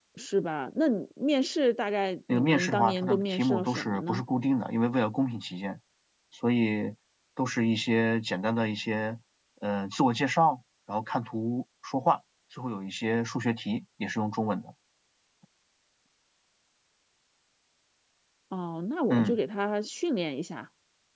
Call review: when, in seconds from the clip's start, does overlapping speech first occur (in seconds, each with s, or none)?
2.3 s